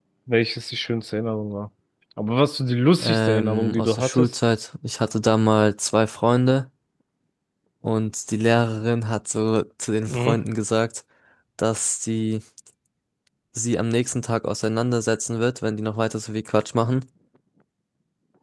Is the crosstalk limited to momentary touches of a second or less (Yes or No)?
No